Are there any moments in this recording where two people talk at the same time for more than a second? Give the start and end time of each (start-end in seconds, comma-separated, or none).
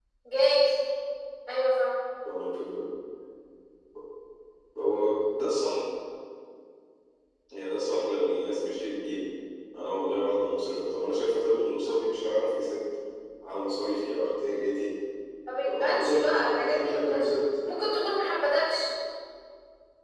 15.7-17.2